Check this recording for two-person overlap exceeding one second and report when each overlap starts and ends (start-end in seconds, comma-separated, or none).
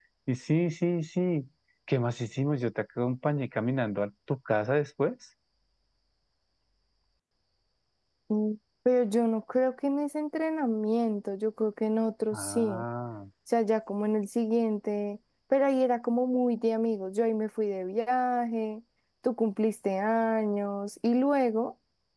none